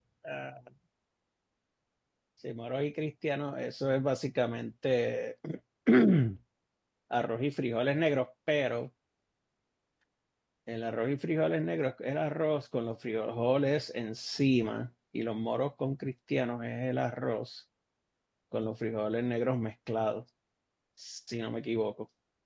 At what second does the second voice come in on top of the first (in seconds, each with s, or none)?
none